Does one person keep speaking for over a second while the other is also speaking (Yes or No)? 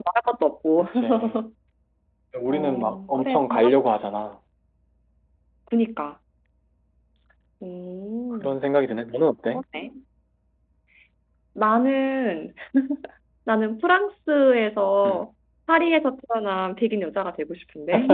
Yes